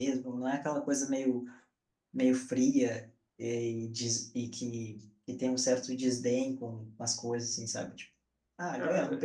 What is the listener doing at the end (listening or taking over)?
taking over